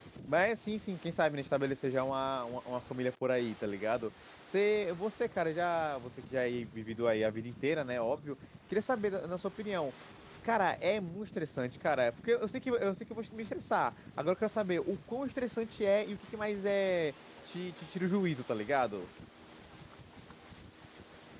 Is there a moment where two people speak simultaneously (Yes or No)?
No